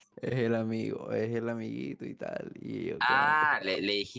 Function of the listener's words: taking over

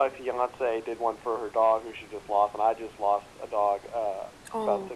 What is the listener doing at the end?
listening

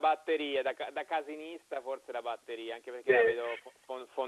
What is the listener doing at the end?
listening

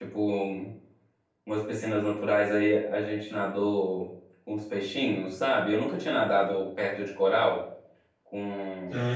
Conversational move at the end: taking over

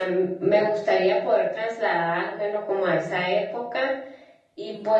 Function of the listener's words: listening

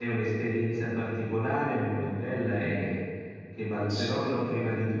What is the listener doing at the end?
listening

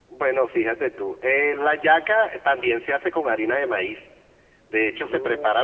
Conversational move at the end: listening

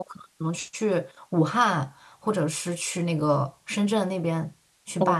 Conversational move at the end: taking over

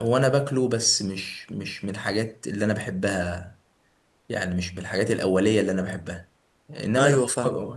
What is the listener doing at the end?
listening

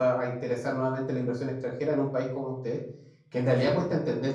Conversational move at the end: listening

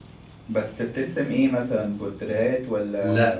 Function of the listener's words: taking over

